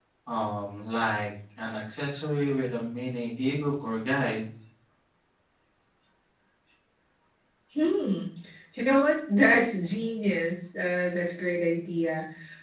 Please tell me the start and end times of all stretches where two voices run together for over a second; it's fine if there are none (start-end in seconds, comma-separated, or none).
none